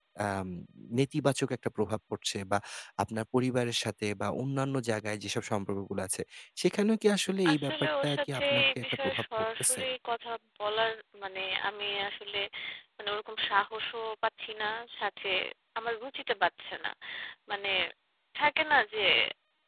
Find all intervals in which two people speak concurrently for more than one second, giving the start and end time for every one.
7.5-9.8

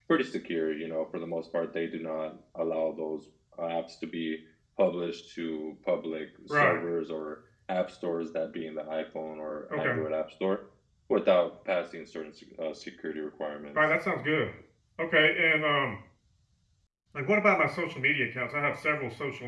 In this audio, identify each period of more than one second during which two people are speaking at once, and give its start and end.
none

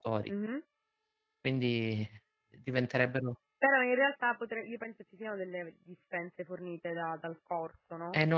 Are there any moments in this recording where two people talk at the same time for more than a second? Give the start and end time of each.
none

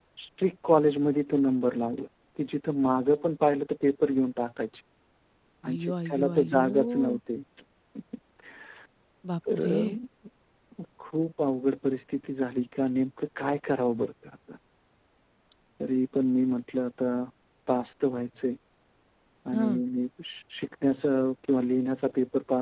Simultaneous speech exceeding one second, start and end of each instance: 5.7-7.2

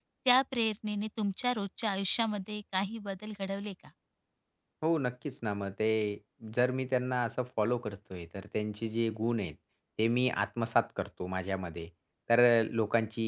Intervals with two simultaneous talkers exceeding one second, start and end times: none

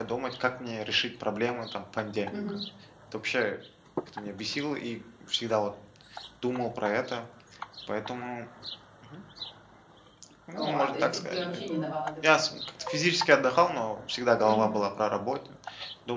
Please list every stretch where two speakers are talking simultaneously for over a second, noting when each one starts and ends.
10.5-11.8

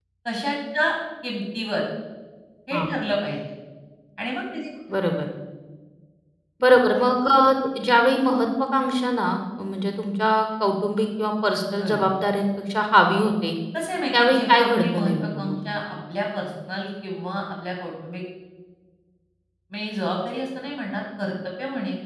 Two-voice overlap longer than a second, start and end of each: 14.1-15.6

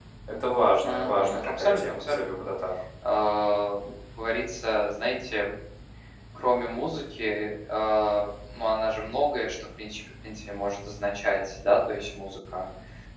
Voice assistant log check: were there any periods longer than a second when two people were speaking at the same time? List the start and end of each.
0.8-2.4

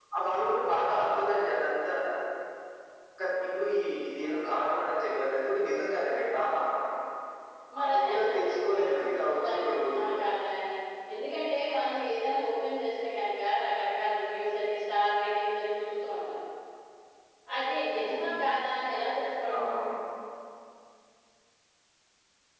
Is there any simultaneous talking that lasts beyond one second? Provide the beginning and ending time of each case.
7.8-10.2

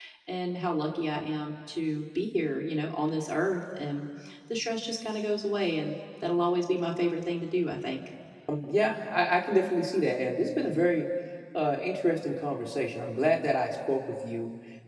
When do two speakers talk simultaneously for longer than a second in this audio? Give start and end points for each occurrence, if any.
none

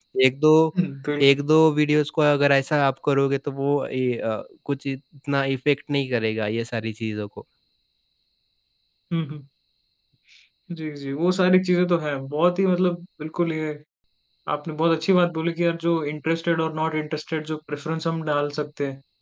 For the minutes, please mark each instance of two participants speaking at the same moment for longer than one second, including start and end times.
none

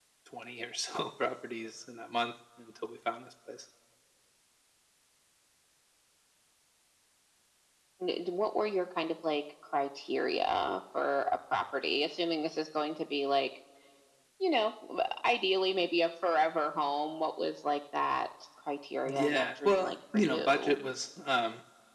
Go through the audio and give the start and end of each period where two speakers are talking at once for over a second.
19.0-20.8

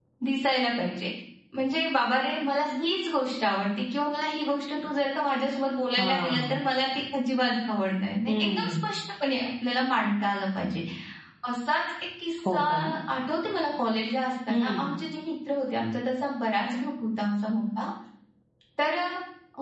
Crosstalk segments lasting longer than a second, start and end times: none

